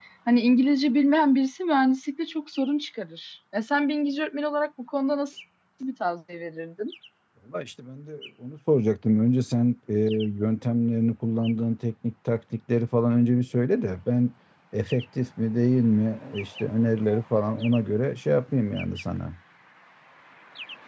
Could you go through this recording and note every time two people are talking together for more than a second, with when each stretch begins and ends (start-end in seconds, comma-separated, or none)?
none